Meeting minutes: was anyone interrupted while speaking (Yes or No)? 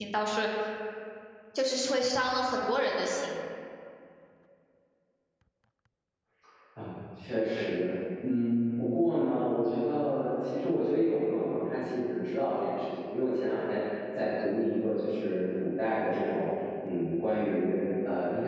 No